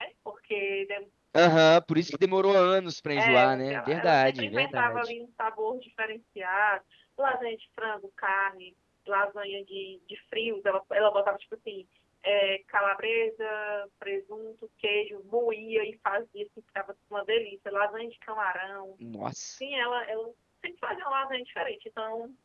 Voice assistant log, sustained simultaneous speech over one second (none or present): present